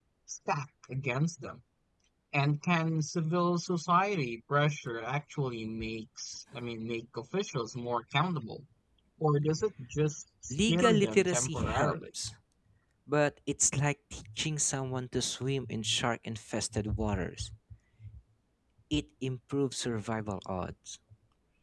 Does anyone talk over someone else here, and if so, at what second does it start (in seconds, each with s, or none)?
10.5 s